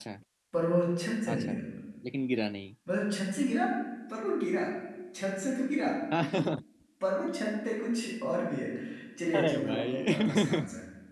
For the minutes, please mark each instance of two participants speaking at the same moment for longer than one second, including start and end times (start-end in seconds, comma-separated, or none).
9.4-10.6